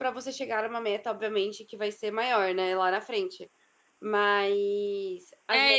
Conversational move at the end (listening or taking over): taking over